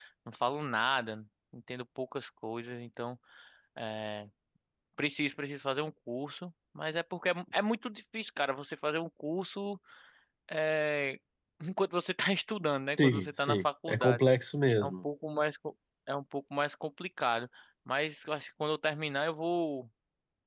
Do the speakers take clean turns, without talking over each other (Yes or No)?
No